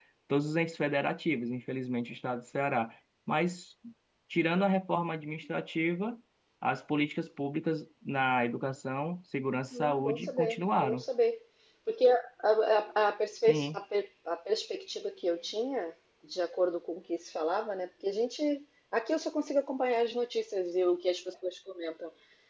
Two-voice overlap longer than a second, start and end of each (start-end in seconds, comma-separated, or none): 9.7-11.0